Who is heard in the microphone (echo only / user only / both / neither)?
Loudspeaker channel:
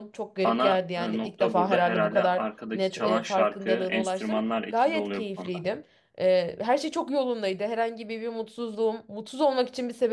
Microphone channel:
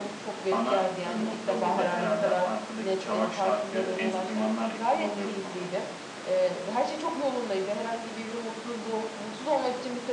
echo only